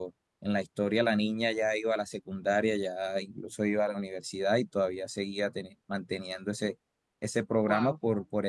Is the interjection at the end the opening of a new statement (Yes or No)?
No